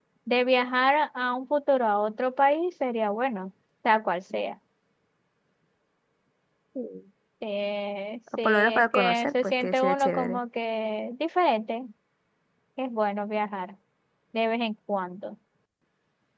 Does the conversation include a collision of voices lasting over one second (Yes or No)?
Yes